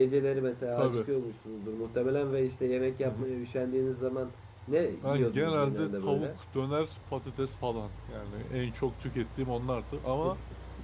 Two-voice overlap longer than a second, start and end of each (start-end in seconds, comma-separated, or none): 5.0-6.3